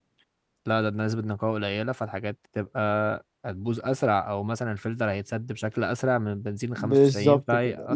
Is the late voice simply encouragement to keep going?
No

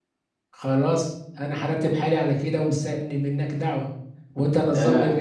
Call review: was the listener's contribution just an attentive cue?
Yes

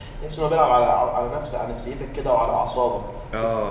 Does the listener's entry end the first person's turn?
Yes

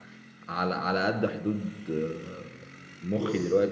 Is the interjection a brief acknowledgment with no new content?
Yes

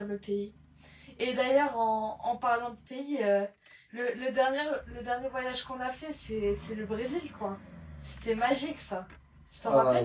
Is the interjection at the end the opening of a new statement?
Yes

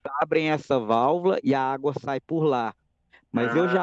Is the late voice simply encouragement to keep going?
Yes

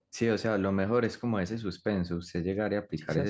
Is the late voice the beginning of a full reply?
No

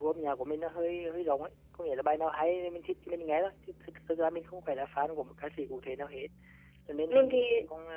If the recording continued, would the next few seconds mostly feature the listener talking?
No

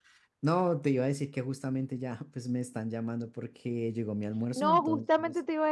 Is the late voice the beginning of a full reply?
Yes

